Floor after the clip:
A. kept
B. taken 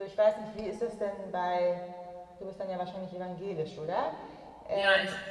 B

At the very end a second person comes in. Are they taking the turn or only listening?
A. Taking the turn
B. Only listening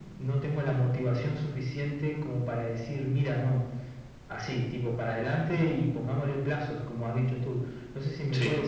B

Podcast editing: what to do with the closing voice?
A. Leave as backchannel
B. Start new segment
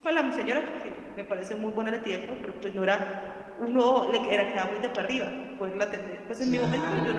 A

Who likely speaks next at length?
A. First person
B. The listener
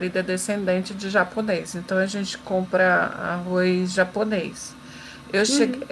A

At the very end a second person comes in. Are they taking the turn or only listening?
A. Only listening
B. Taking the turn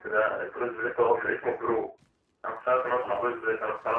A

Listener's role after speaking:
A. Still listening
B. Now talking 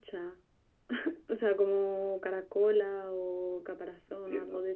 B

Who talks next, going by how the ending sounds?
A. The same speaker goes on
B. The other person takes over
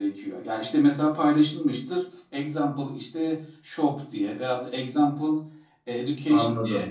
A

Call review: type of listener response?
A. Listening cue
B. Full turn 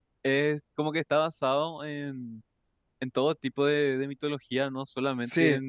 A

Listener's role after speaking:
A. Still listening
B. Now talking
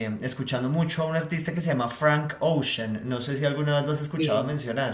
B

